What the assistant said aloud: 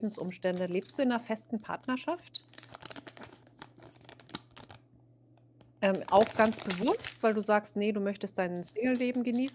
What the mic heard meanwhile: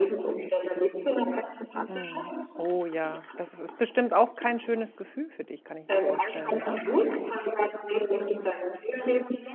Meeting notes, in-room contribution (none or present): present